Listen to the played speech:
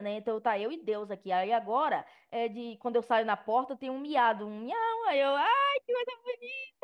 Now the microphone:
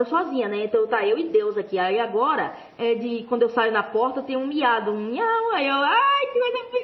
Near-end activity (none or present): none